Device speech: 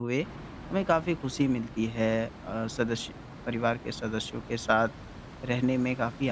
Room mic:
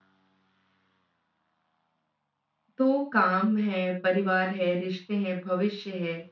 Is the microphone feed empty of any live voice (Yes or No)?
No